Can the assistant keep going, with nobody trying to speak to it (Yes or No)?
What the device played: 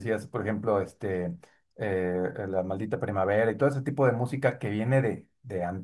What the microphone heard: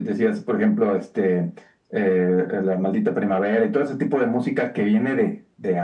Yes